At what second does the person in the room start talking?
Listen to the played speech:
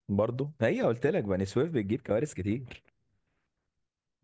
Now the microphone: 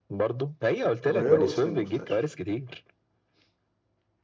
1 s

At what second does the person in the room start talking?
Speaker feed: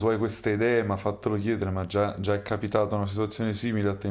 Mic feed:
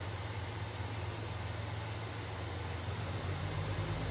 none

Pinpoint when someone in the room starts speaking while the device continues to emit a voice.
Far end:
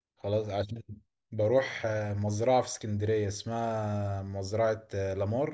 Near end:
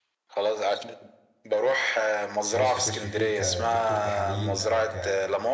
2 s

